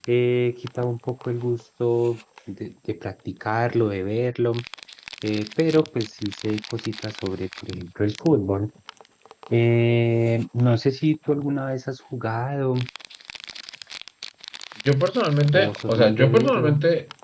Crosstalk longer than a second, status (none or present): present